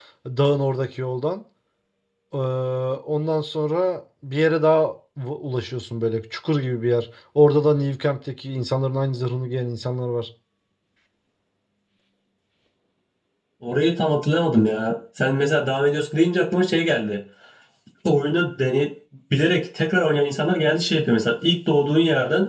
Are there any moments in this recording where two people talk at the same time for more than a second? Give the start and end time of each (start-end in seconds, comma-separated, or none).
none